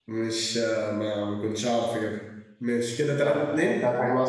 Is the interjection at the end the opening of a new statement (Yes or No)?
Yes